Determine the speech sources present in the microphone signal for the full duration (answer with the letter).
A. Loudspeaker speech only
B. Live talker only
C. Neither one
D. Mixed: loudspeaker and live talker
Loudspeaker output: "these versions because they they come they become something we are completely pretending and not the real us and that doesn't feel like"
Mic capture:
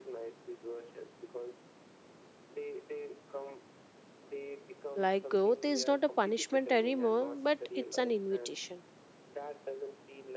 D